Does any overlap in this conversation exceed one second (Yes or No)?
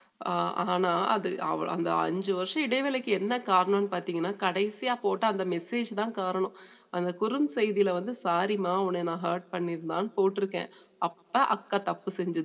No